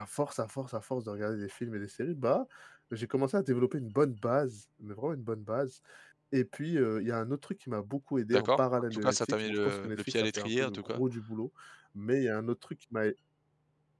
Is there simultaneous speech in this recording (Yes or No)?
Yes